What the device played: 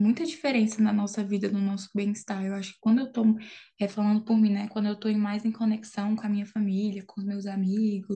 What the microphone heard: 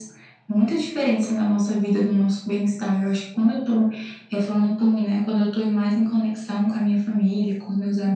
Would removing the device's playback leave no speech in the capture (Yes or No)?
Yes